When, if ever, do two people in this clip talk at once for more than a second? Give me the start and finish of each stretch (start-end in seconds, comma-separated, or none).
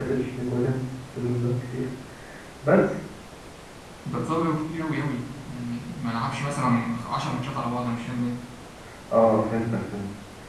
none